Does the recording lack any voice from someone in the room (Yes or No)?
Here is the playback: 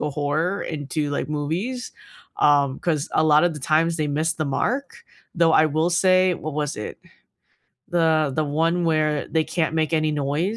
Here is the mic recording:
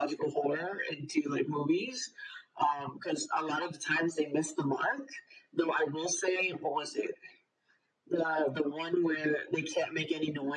Yes